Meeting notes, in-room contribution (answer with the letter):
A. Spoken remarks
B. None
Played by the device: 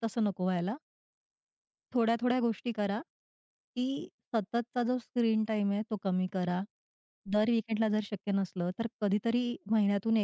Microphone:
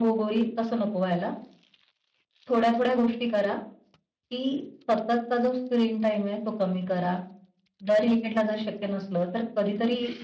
B